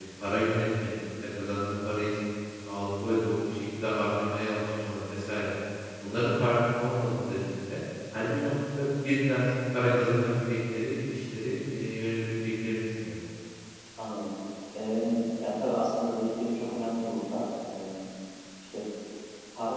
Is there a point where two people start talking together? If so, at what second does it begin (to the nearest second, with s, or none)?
none